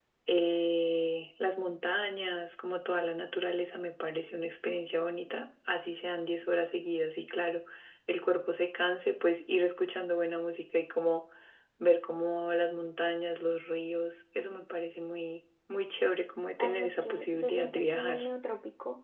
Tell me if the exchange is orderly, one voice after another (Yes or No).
No